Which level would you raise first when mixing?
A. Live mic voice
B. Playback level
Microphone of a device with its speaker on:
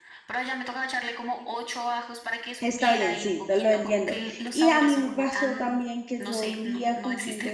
B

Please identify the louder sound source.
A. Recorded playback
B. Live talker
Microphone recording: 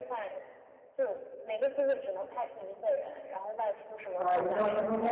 B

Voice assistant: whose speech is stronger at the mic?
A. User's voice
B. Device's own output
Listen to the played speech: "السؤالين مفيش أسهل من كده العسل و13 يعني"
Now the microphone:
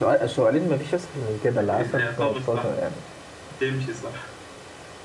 B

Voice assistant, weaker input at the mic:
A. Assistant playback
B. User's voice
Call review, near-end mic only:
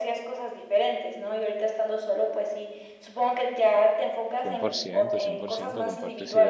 B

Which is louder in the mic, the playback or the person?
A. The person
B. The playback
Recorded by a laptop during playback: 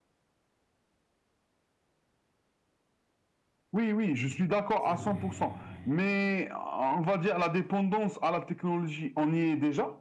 B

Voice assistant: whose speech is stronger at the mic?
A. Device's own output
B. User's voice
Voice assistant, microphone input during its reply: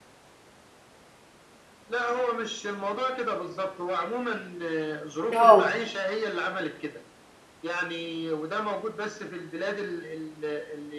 B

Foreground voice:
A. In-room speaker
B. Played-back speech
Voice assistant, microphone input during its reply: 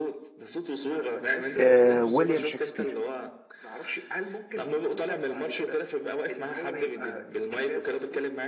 A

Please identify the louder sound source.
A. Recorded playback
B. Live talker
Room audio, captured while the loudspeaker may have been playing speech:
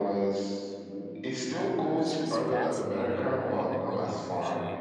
A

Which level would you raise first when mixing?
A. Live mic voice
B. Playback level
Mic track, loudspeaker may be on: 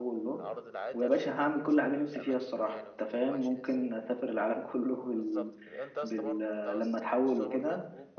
B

